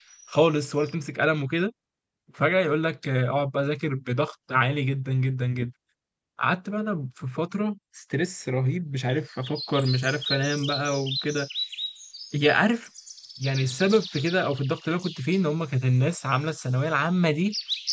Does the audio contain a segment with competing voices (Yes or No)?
No